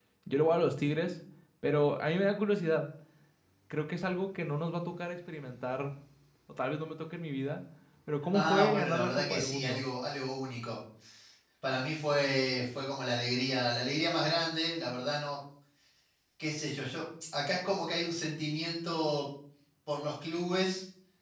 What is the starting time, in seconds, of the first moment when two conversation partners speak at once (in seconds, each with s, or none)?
8.3 s